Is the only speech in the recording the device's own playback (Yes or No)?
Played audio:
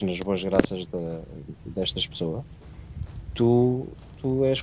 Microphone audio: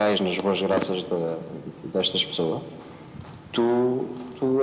Yes